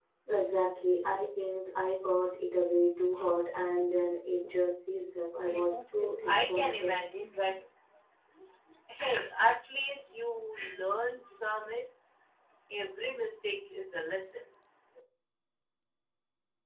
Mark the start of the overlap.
5.5 s

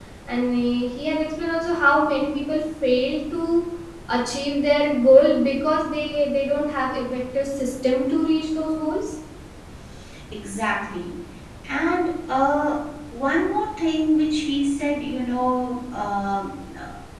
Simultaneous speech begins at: none

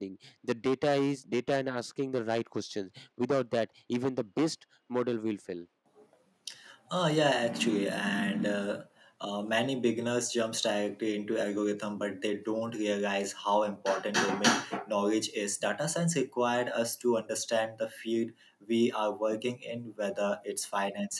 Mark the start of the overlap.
none

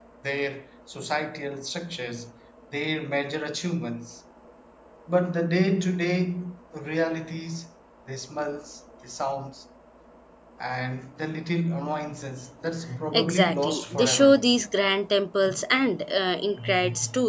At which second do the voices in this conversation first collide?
12.9 s

